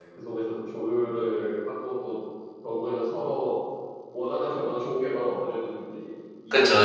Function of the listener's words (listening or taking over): taking over